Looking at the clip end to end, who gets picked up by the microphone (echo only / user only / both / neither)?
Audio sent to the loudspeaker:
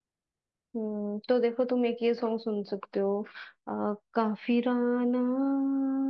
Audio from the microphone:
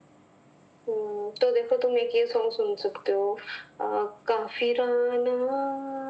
echo only